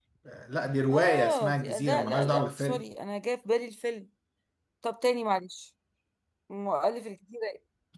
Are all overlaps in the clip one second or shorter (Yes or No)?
No